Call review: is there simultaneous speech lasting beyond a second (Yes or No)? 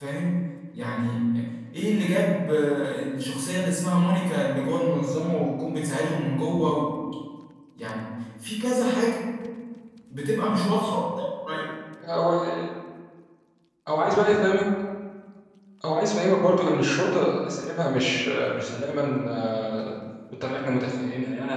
No